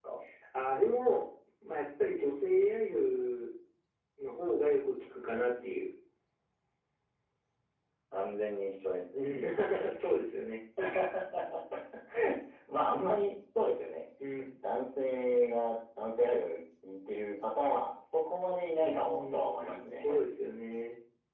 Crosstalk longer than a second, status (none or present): present